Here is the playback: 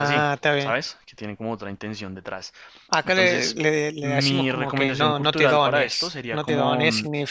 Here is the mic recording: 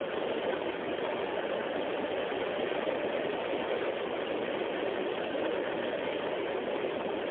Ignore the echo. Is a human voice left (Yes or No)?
No